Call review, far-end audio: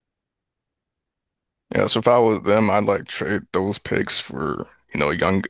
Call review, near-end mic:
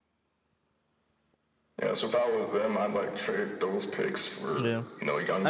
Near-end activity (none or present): present